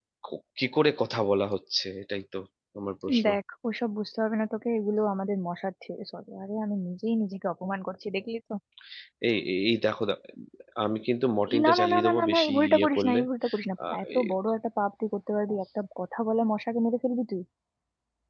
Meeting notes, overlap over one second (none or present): present